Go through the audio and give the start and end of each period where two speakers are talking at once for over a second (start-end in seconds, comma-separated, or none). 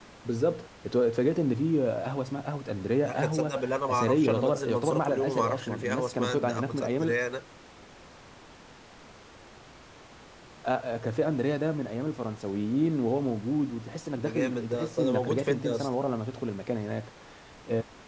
3.0-7.1, 14.2-15.9